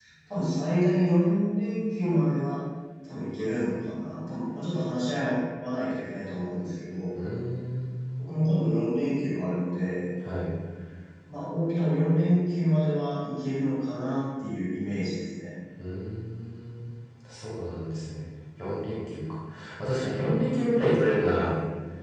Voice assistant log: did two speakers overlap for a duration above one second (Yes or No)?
No